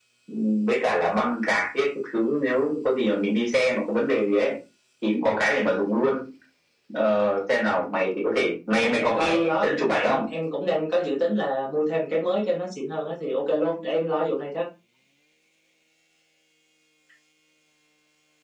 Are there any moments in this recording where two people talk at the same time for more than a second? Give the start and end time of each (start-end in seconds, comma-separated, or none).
8.7-10.2